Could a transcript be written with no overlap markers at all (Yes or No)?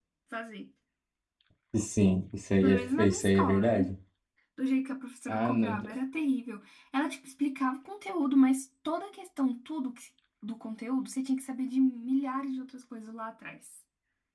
No